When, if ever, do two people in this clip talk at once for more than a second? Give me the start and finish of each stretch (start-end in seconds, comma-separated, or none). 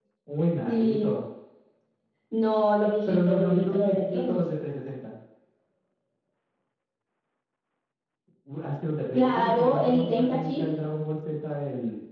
3.1-4.5, 9.1-10.6